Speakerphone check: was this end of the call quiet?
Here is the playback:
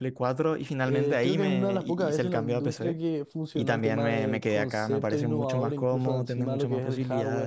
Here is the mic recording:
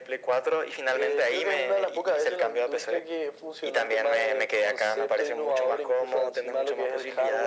Yes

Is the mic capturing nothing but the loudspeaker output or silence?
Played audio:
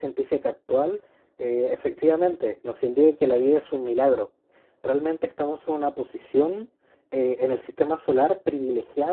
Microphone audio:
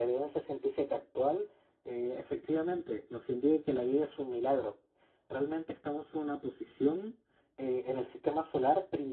Yes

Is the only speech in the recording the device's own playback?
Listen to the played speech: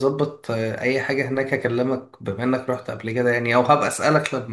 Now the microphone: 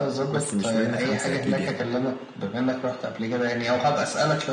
No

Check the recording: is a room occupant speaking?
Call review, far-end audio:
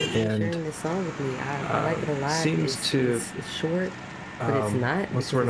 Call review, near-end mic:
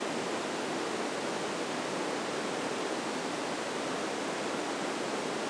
No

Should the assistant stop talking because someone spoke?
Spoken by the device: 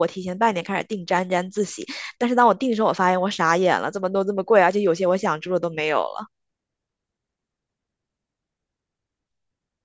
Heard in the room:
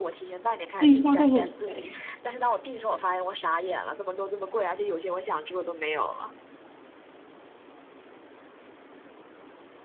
Yes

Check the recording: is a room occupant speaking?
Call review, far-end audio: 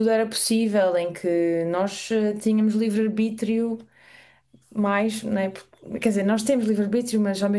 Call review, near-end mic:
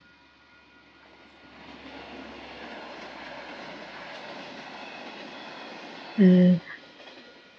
Yes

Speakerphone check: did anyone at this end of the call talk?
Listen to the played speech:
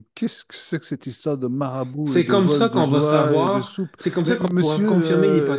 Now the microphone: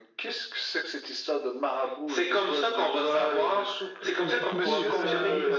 Yes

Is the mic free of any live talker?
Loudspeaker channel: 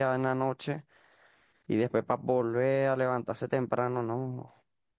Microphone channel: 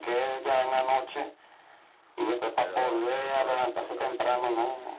No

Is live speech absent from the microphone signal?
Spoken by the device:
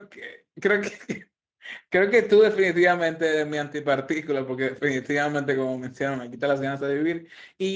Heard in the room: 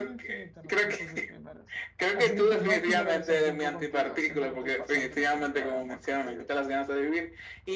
No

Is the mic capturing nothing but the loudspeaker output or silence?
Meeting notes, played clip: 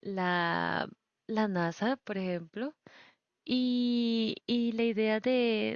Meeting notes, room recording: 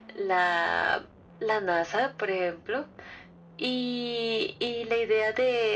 Yes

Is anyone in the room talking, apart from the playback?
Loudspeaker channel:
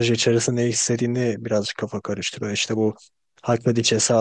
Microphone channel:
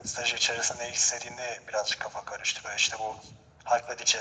No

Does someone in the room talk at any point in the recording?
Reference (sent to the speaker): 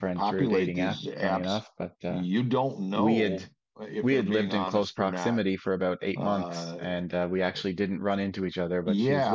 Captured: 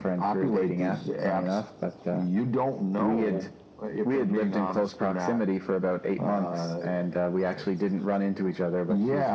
No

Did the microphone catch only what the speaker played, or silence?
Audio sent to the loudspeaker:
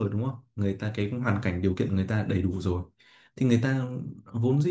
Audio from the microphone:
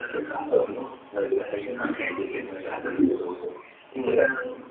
Yes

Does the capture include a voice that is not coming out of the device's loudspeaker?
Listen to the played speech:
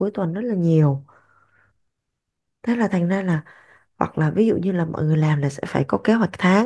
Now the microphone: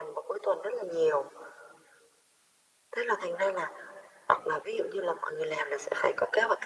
No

